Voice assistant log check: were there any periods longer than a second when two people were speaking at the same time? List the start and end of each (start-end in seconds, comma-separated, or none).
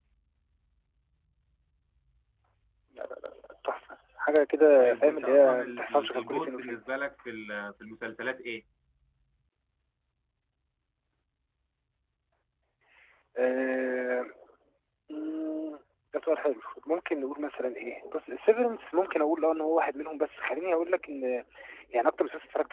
4.8-6.8